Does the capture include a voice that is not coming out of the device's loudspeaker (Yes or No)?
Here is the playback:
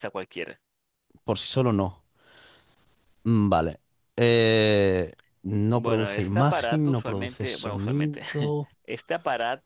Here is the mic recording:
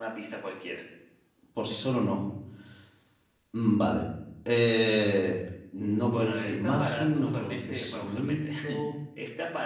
No